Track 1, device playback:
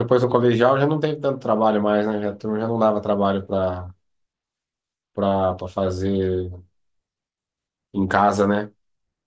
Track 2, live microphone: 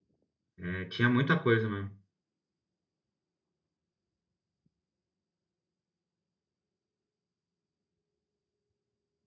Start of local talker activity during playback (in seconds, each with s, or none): 0.6 s